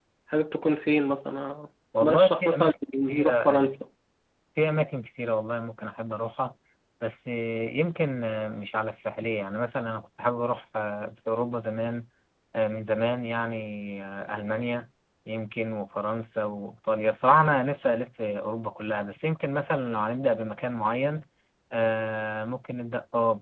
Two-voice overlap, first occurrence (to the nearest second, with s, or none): 2 s